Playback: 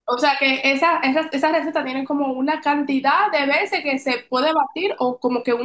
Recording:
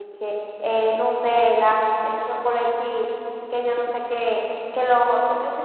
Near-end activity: present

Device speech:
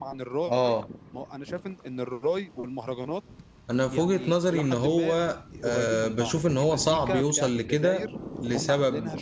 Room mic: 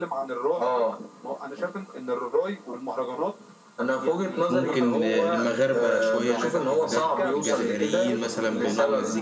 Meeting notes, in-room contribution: present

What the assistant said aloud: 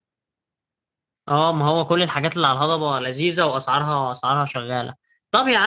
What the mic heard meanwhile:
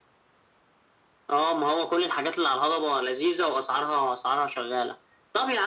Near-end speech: none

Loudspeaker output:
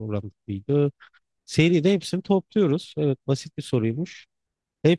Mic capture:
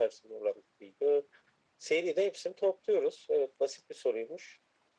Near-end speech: none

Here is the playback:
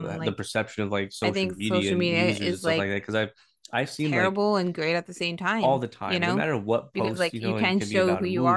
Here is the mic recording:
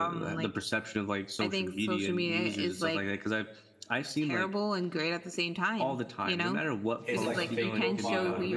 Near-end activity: present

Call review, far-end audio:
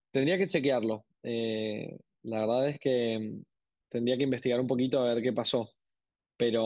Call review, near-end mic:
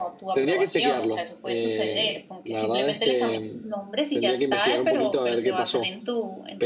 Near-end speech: present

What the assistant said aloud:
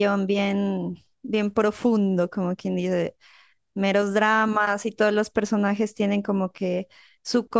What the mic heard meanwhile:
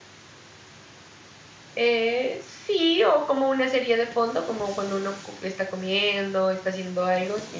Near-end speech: present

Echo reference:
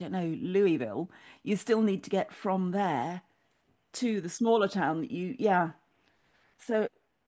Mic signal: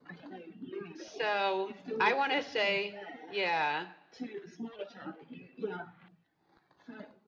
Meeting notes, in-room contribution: present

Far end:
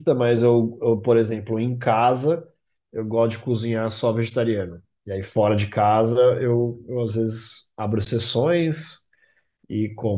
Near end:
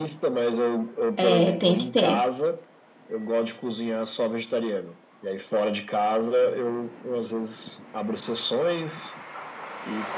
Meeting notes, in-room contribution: present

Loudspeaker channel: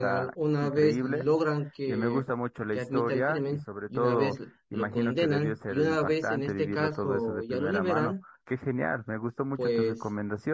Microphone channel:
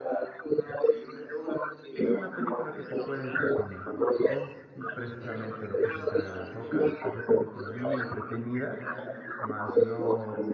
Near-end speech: present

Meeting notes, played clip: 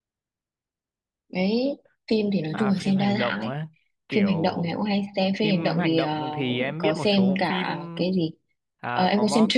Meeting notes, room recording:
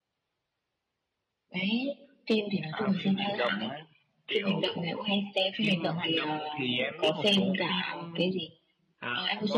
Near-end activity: none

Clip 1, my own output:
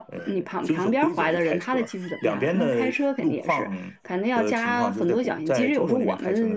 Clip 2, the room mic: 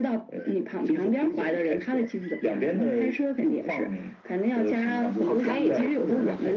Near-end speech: present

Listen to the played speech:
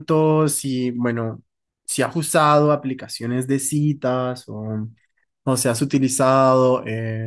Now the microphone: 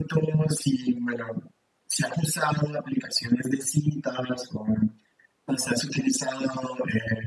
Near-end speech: none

